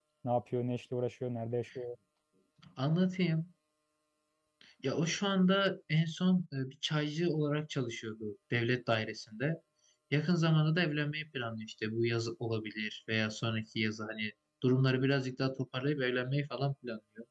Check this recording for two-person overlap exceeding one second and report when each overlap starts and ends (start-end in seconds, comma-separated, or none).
none